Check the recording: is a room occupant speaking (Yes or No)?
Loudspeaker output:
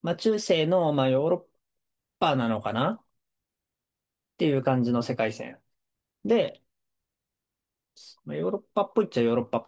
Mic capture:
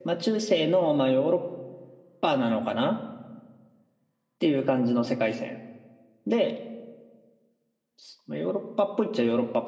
No